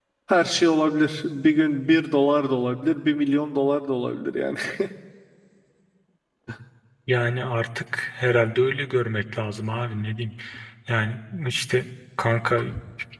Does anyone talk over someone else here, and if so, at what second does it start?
none

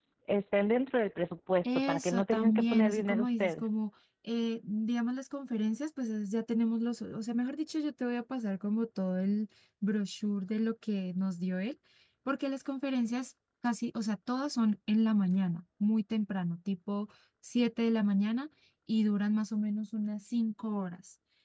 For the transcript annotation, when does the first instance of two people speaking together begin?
2 s

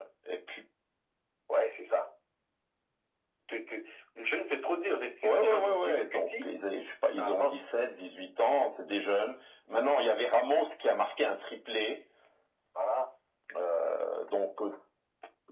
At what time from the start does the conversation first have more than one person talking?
5 s

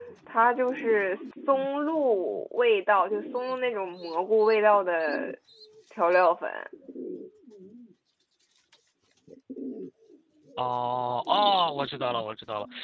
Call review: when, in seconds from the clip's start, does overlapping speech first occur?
none

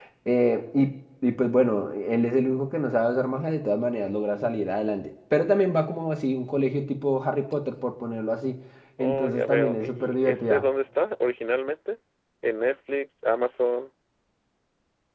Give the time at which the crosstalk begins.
9 s

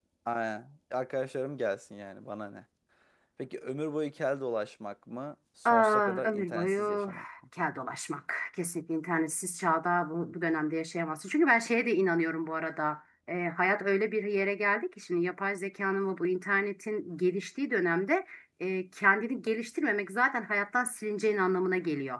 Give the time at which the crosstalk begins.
6 s

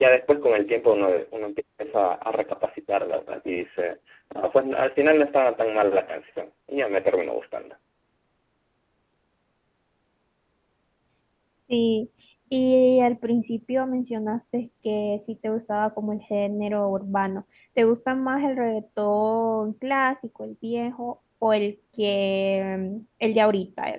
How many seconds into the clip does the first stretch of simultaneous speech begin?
none

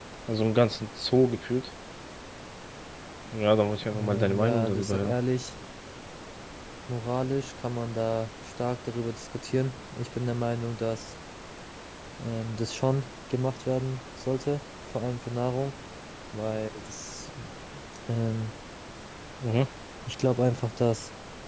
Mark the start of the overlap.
4 s

